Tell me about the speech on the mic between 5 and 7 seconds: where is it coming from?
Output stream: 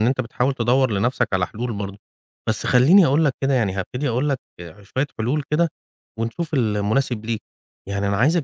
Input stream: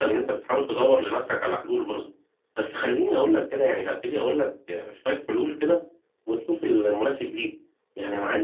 echo only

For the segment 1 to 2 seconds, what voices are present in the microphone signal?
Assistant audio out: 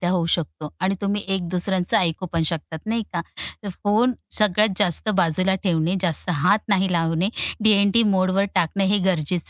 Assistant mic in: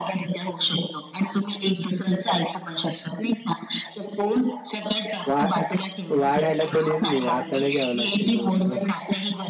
echo only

